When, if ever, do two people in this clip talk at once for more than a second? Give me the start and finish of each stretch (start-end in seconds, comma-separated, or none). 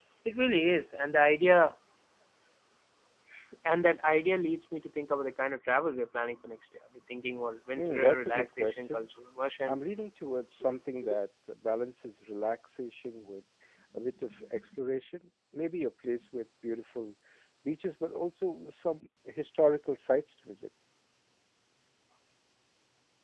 7.8-9.0